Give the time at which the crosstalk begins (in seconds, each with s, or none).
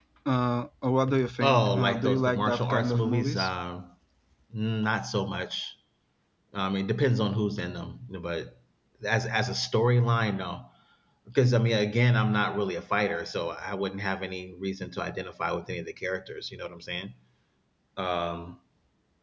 1.4 s